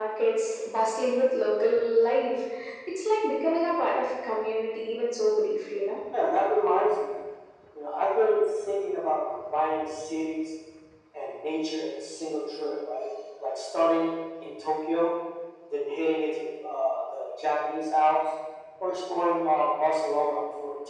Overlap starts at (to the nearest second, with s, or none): none